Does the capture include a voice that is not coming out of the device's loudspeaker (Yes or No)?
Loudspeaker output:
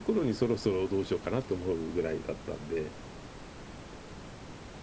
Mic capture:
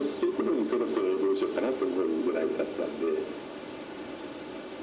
No